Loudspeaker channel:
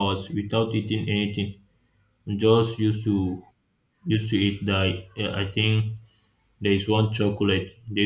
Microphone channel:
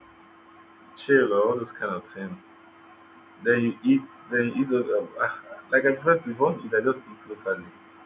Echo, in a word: none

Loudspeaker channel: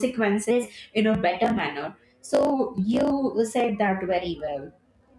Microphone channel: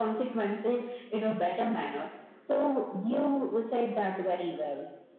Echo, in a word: present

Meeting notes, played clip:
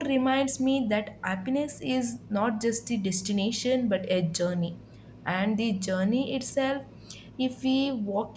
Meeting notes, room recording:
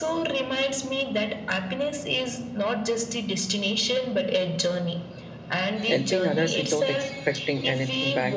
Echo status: present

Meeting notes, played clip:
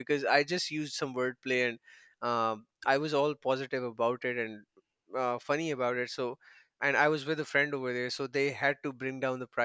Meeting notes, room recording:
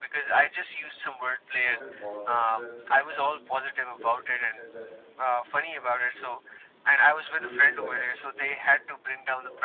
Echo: present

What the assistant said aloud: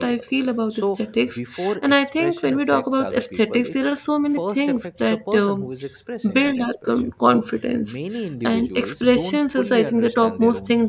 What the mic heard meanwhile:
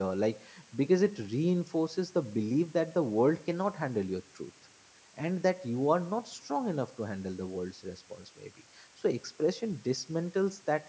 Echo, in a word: none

